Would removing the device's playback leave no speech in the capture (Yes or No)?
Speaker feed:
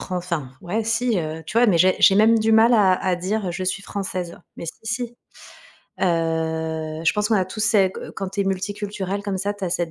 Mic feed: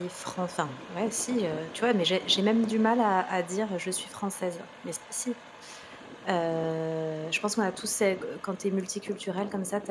Yes